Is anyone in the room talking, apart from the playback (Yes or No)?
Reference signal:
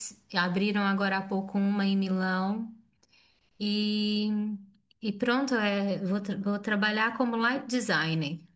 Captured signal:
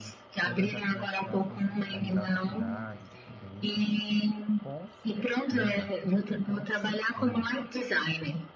Yes